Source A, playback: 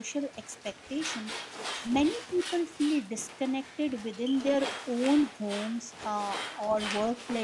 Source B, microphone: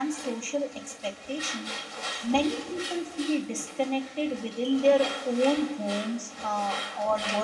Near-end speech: none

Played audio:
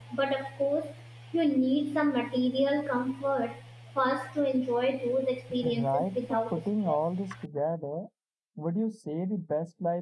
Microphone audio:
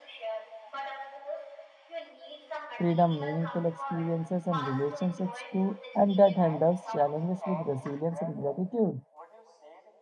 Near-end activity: present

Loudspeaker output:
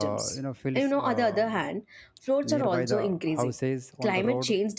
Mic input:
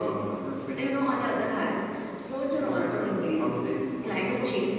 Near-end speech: none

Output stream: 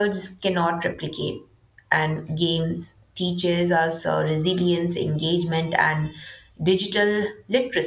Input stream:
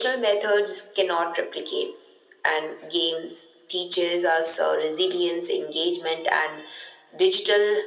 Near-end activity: none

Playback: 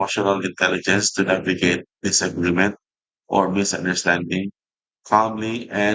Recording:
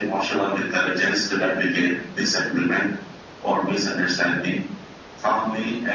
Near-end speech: none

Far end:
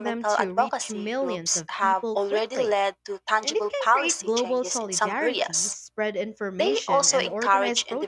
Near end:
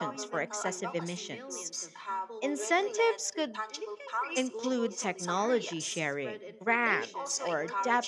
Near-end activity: present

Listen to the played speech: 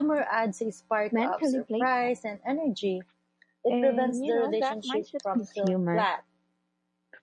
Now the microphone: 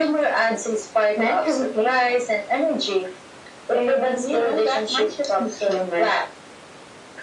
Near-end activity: none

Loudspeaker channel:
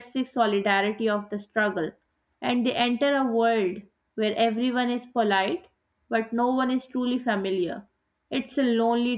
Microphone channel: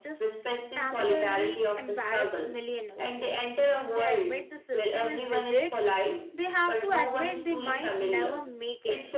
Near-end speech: present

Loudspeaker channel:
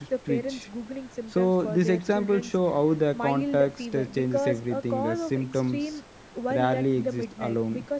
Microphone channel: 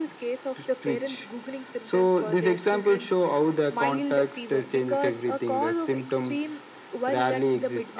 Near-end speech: none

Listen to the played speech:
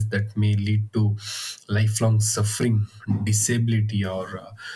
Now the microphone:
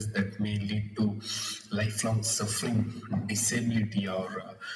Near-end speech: none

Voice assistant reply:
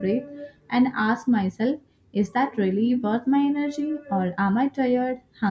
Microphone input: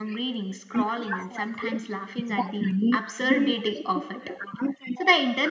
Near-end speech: present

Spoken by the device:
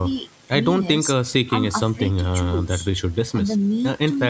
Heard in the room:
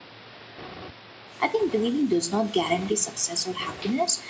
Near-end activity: present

